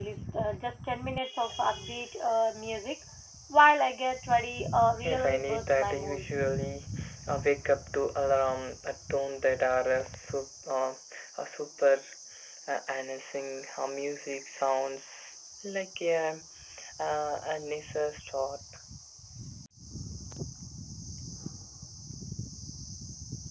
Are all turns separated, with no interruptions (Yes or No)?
No